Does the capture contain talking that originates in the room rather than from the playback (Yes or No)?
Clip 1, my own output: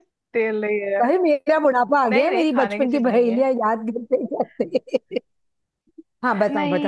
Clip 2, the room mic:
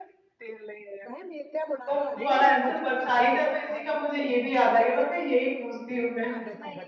Yes